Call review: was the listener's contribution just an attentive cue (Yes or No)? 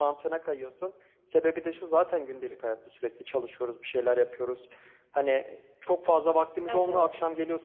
Yes